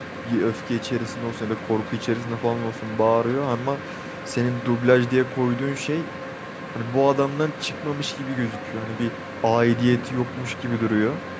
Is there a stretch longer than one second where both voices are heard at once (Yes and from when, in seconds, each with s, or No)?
No